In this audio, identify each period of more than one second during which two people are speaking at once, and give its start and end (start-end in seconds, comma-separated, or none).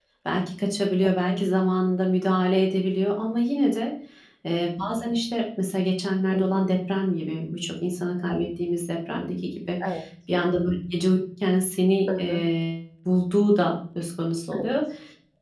none